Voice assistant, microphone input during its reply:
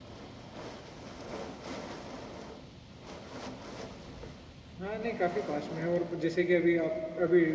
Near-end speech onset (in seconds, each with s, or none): 4.8 s